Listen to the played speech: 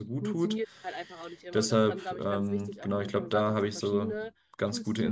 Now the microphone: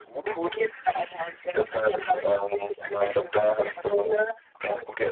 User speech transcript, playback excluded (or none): none